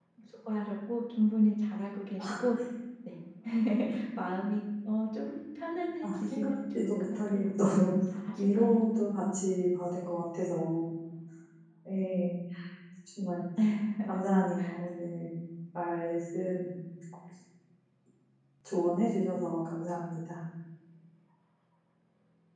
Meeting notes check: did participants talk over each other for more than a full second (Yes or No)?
Yes